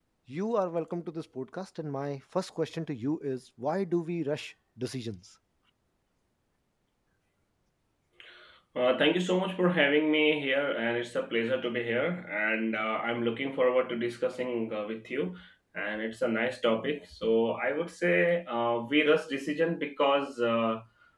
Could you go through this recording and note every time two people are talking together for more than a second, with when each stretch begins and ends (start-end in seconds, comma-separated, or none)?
none